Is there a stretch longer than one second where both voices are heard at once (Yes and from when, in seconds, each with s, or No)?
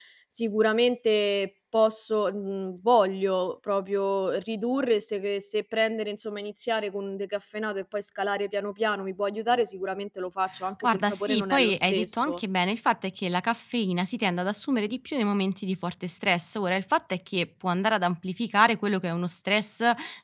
Yes, from 10.8 s